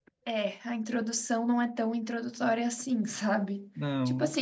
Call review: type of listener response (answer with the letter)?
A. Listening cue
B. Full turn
A